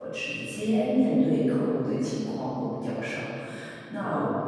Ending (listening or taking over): listening